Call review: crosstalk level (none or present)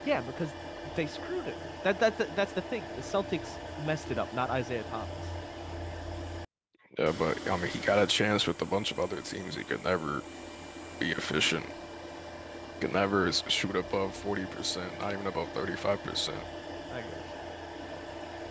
none